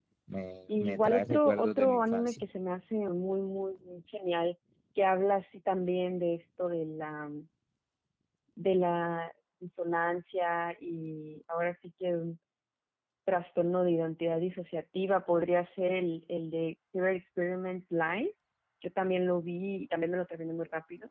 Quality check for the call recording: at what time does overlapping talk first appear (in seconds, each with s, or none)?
0.8 s